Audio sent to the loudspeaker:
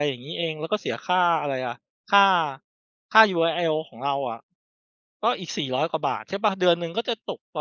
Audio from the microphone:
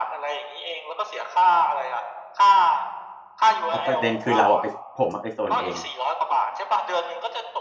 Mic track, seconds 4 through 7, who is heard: both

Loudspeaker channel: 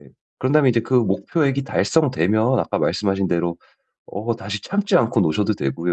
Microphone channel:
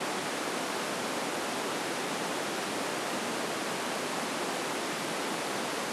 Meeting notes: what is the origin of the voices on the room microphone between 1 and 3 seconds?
neither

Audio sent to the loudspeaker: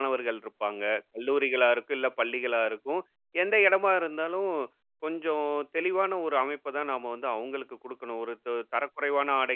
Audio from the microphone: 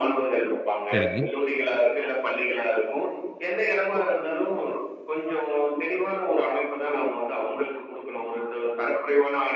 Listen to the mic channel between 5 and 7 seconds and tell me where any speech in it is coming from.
echo only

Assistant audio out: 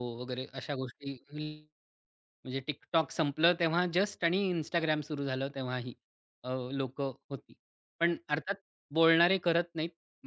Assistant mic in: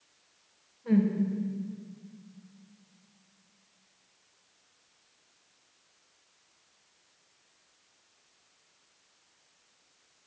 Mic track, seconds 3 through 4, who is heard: neither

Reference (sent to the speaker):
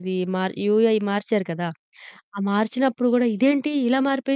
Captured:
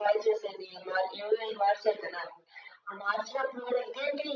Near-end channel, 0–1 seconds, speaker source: echo only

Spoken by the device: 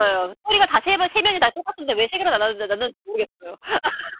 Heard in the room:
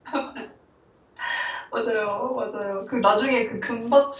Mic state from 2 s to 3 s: user only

